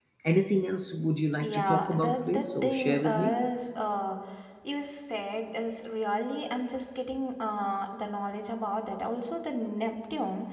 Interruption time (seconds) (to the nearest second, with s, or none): 1 s